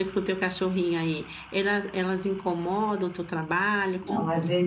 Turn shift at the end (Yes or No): Yes